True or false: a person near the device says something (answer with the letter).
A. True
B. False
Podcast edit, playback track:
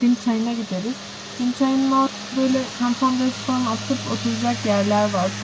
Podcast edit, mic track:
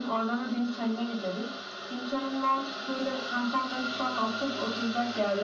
B